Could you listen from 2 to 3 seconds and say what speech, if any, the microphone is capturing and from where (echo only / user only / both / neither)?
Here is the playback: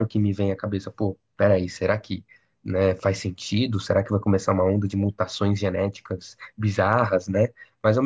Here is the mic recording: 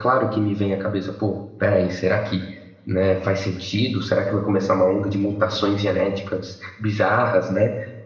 echo only